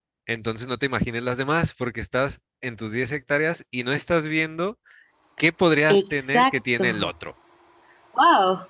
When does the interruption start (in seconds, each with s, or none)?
5.9 s